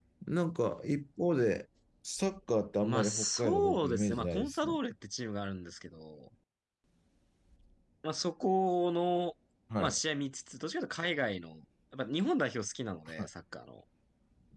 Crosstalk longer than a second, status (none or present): present